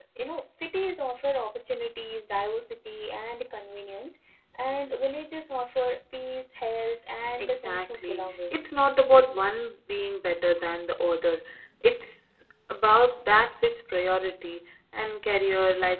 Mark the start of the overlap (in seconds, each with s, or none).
7.4 s